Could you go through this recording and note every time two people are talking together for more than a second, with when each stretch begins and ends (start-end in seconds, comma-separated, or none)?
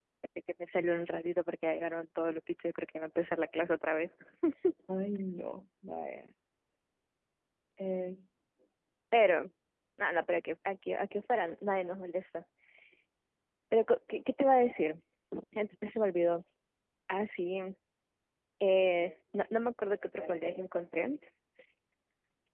none